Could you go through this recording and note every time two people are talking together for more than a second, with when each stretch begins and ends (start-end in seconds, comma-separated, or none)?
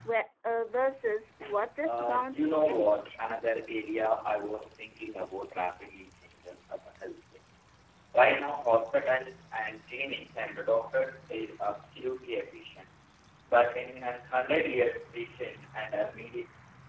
1.8-3.1